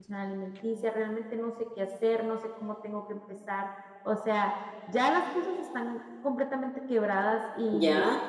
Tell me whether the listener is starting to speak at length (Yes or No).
Yes